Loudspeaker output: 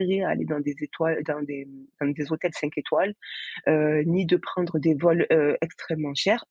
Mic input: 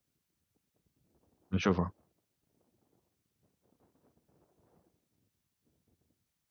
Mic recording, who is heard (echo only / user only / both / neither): user only